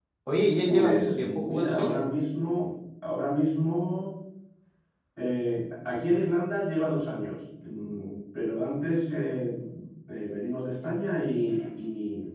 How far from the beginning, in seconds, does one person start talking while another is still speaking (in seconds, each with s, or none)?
0.7 s